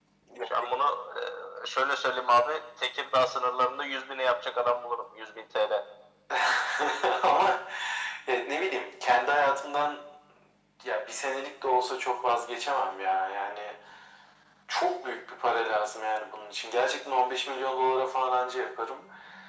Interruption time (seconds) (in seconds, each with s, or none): none